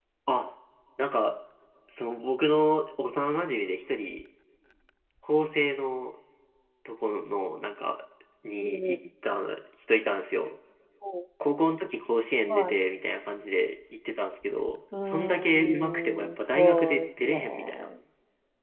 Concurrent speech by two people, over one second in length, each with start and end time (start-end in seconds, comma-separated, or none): 15.0-17.9